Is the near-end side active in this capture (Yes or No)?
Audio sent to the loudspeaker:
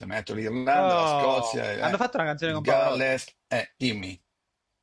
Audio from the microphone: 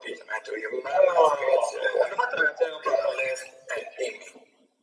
No